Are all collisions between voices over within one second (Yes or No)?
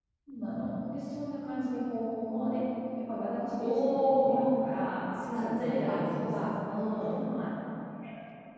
No